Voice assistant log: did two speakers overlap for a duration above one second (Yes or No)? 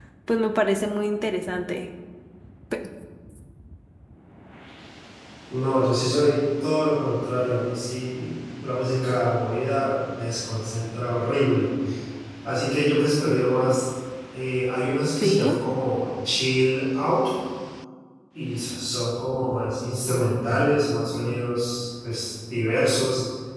No